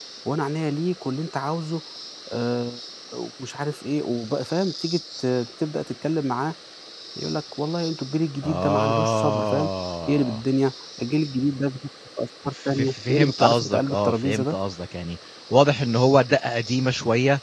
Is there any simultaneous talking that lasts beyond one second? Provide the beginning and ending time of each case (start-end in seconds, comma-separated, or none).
8.4-9.7, 12.6-14.6